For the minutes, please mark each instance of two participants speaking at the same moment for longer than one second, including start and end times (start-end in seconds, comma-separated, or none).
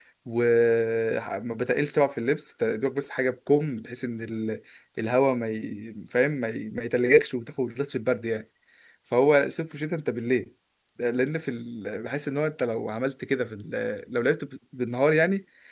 none